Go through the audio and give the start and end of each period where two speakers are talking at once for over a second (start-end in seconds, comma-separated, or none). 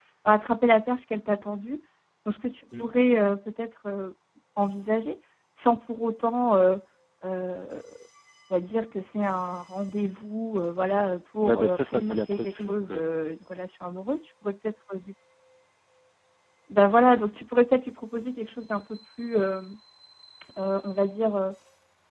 11.4-13.1